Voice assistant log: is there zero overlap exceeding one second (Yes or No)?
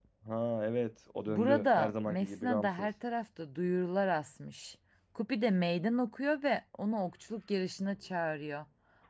No